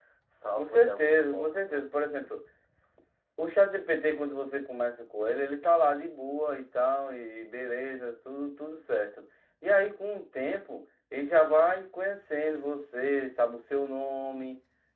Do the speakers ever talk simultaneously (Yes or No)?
Yes